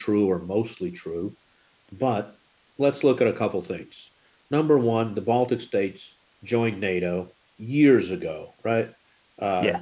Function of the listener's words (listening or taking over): listening